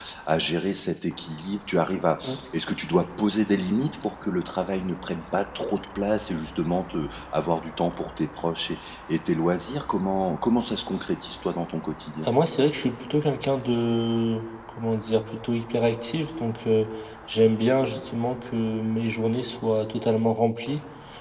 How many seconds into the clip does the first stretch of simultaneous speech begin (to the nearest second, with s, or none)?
none